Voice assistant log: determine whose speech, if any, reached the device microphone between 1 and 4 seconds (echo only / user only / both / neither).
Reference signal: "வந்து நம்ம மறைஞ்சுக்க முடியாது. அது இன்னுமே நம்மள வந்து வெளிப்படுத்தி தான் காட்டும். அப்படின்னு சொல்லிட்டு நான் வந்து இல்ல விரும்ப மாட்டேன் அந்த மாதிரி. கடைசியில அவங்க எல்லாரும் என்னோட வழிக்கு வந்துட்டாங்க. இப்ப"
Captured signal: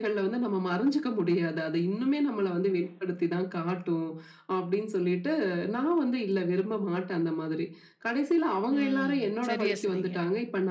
echo only